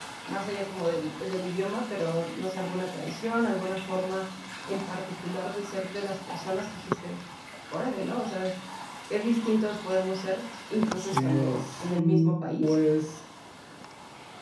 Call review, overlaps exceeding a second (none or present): present